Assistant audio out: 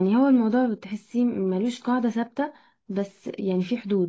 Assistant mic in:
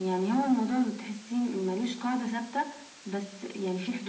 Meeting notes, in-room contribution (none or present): none